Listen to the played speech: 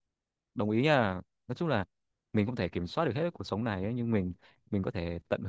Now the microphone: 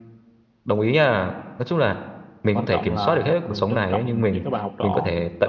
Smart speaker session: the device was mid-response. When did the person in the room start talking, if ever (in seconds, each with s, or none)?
2.5 s